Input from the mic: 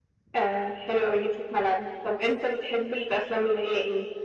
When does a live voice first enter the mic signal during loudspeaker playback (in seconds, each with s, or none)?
none